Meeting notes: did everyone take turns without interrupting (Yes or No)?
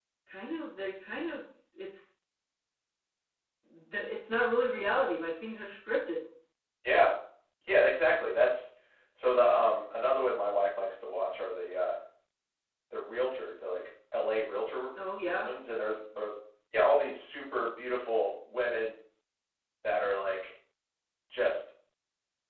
Yes